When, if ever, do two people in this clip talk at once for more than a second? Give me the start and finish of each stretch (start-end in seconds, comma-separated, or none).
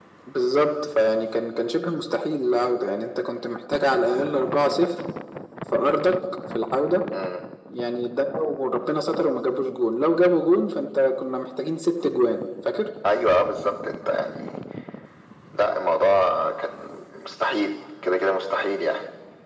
none